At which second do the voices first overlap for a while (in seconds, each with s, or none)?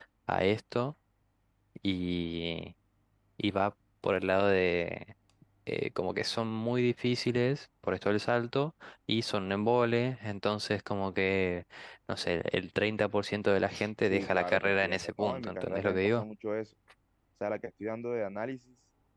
14.0 s